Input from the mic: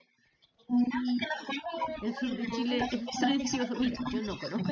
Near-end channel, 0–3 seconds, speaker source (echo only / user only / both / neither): both